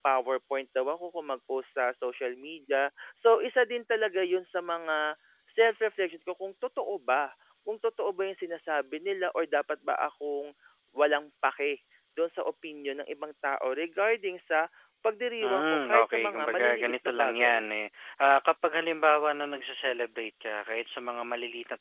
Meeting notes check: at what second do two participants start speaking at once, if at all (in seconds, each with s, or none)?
15.4 s